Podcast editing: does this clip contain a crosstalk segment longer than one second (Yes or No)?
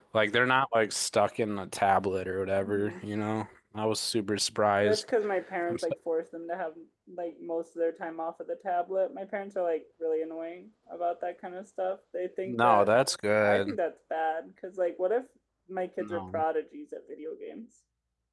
No